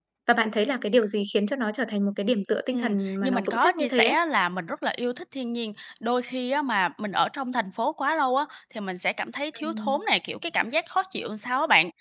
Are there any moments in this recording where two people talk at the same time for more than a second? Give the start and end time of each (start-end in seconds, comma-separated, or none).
2.7-4.2